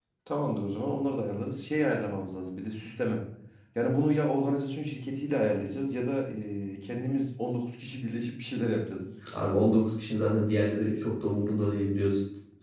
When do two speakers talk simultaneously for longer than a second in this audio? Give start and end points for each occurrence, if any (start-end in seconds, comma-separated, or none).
none